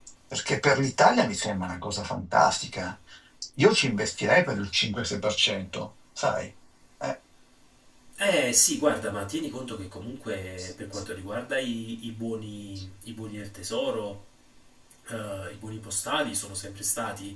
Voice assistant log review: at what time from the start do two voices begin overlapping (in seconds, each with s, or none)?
none